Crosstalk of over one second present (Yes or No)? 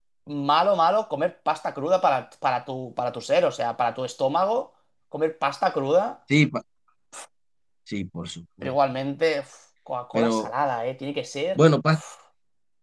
No